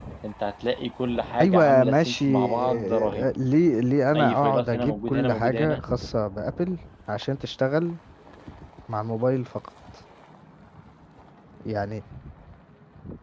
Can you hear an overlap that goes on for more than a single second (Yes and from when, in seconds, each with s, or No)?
Yes, from 1.4 s